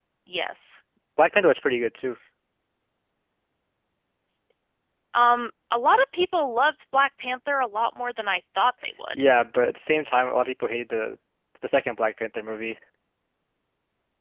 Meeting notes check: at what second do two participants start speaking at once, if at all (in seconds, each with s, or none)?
none